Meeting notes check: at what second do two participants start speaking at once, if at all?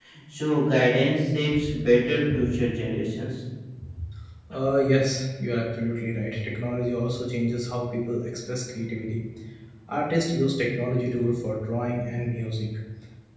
none

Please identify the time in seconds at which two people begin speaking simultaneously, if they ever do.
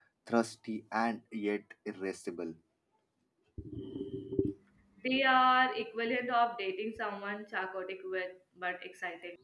none

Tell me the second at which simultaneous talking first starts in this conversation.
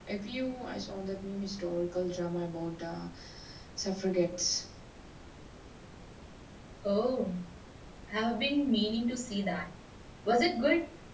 none

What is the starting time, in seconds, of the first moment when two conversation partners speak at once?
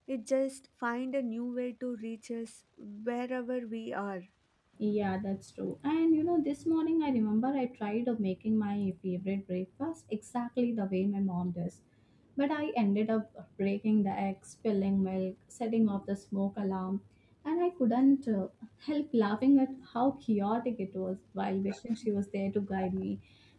none

